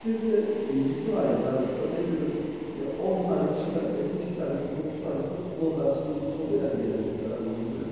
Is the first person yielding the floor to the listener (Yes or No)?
Yes